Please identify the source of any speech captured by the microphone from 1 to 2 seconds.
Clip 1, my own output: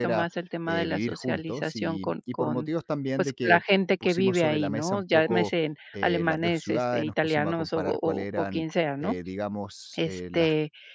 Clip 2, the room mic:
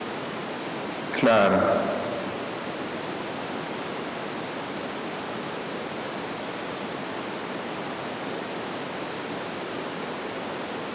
user only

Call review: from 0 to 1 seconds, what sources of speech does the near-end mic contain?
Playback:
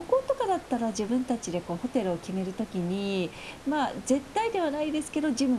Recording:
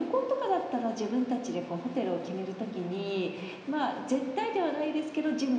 echo only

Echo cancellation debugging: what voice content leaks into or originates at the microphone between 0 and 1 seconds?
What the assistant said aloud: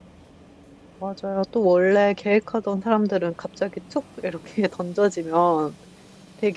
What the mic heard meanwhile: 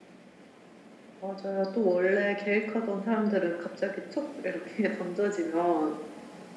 neither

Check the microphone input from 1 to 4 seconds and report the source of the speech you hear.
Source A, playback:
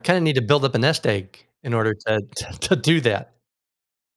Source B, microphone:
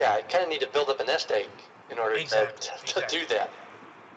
both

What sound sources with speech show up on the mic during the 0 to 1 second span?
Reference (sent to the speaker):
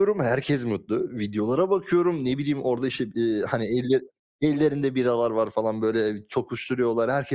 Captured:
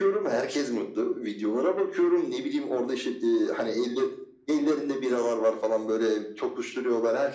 echo only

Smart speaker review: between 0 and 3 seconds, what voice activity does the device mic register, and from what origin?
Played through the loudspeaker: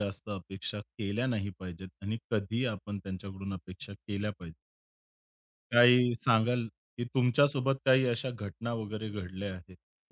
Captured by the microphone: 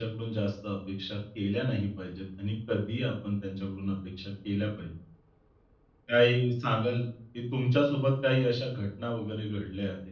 echo only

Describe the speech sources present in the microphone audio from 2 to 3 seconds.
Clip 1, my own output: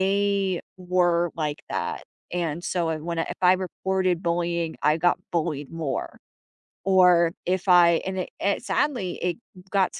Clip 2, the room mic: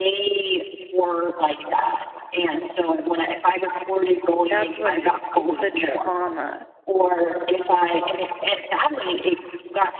echo only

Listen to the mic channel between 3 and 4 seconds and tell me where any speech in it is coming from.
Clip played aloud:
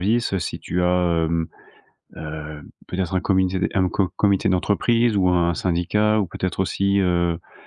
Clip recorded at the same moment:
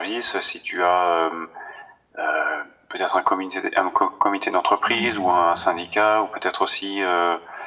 echo only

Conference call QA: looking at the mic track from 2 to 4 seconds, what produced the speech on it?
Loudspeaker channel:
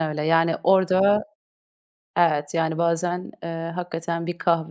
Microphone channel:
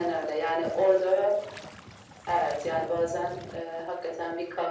echo only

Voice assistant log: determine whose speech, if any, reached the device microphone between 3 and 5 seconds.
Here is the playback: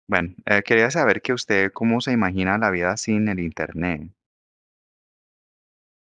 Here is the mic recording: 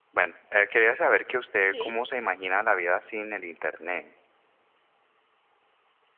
echo only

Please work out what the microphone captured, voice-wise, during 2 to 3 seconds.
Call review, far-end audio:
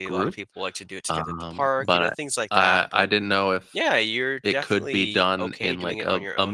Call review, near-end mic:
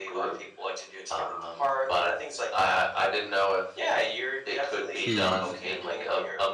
echo only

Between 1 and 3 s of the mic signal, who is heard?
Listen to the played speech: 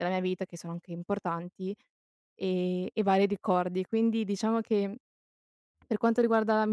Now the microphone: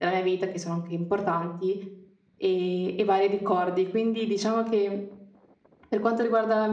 echo only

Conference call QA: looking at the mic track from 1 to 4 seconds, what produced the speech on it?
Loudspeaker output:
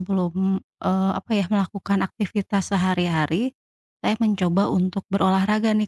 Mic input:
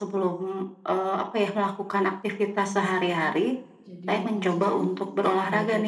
both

